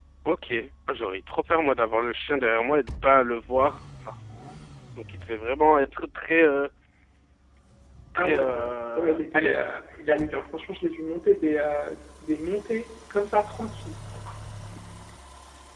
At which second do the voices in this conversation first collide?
8.2 s

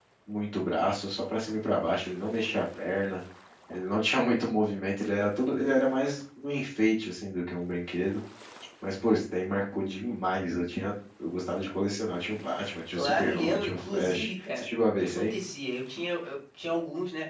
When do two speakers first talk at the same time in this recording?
12.9 s

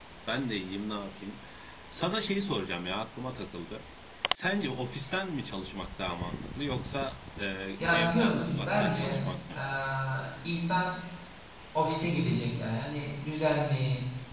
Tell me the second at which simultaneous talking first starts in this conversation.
7.9 s

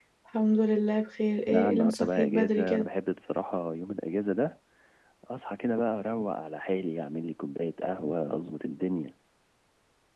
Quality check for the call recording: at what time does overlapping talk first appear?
1.5 s

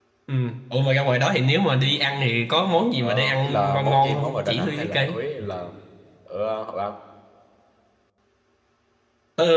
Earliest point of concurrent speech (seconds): 3.0 s

